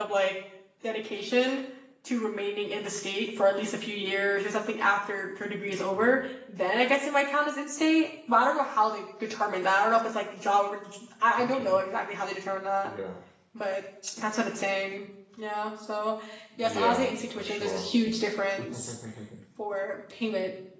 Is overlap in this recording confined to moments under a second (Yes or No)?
No